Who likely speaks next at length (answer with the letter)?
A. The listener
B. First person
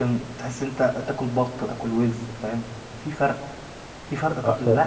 B